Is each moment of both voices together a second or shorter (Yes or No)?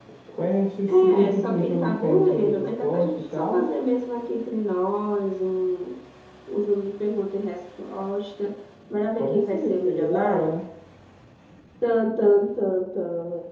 No